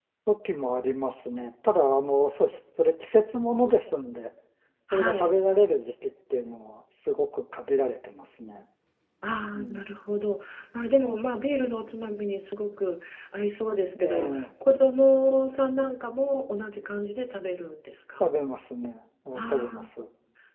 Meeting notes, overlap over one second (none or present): none